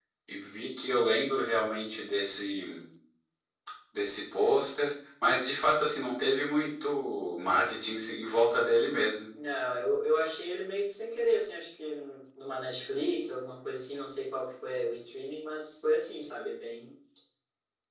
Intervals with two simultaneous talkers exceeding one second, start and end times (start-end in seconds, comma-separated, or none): none